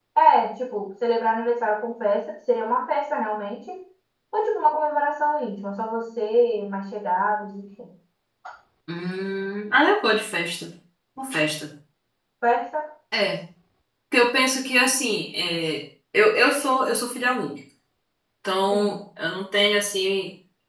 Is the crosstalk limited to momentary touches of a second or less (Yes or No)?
Yes